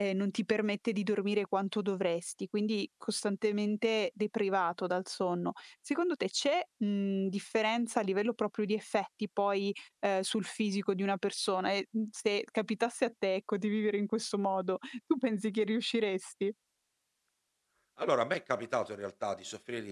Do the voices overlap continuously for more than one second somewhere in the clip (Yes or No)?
No